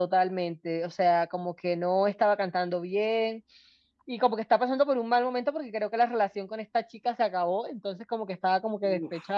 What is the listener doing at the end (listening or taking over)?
listening